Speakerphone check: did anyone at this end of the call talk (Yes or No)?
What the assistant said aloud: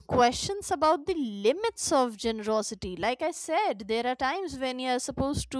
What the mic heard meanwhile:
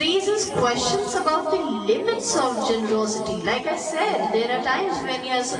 Yes